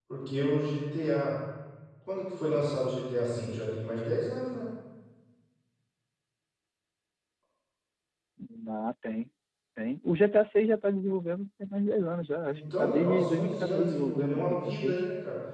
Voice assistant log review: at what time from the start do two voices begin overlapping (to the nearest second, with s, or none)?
12 s